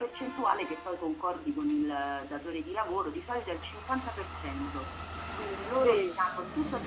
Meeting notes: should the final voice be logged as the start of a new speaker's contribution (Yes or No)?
No